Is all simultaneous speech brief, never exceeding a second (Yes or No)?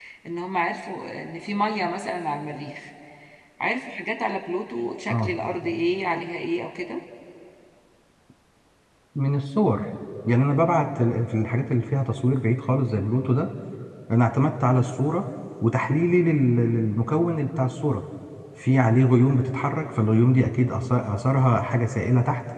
Yes